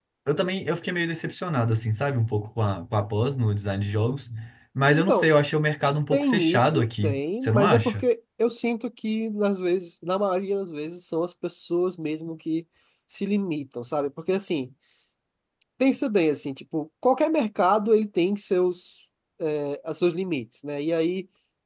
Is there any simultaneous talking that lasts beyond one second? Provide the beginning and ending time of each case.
6.1-8.0

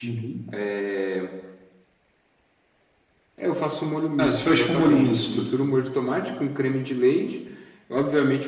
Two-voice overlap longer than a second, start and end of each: 4.2-5.4

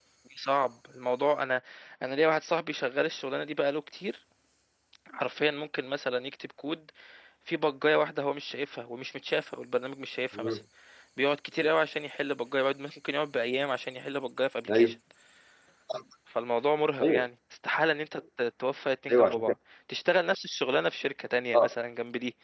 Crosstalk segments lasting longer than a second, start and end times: none

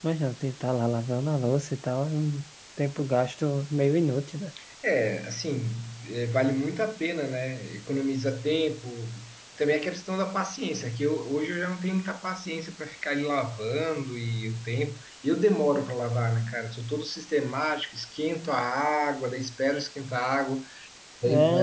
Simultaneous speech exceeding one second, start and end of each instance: none

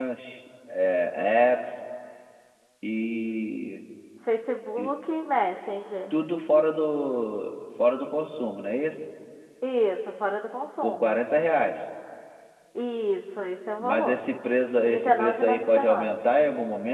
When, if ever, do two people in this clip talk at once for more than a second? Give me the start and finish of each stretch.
14.8-16.1

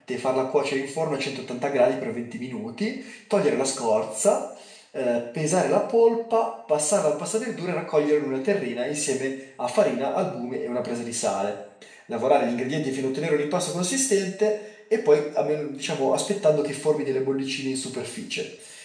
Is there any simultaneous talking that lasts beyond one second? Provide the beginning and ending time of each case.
none

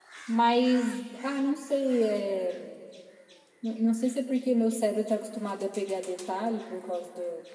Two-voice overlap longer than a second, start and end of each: none

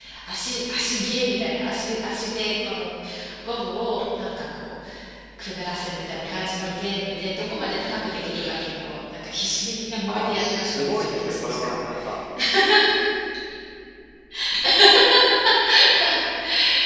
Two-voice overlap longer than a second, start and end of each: 10.1-11.7

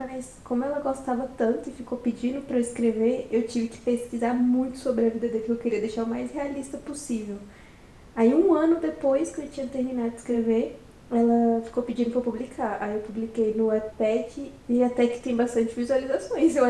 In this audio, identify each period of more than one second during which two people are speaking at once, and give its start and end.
none

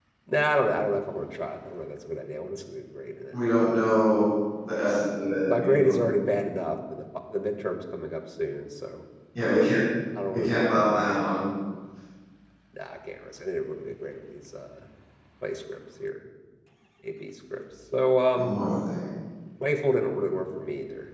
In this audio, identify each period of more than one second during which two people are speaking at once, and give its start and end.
none

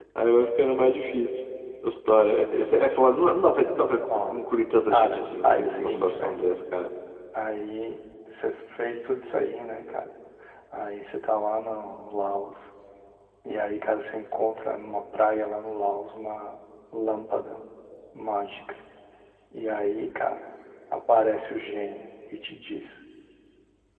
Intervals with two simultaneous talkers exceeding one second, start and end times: 4.9-6.3

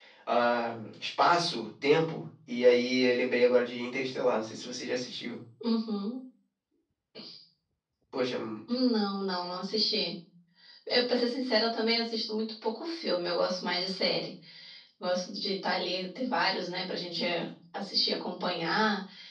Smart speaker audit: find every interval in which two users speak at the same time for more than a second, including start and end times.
none

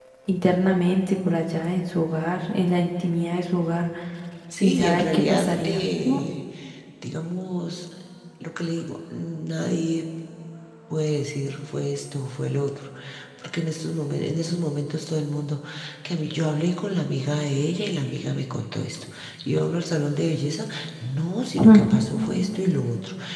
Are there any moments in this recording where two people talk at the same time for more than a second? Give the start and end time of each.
4.6-6.2

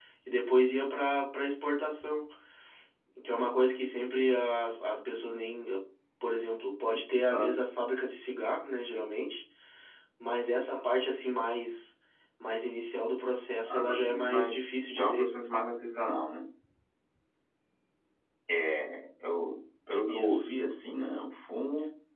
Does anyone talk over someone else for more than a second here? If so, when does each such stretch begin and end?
13.7-15.3

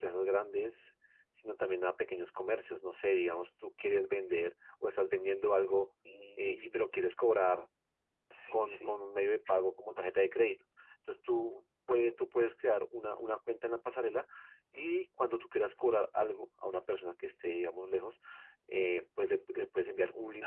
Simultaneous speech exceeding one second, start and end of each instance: none

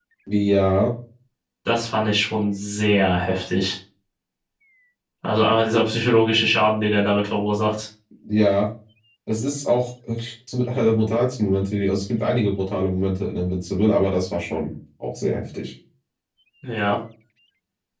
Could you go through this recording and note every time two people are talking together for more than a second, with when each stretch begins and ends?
none

